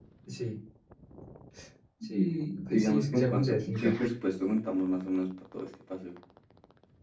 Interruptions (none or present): present